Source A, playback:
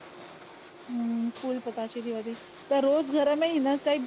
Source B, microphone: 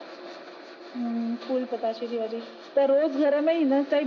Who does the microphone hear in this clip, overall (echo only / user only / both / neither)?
echo only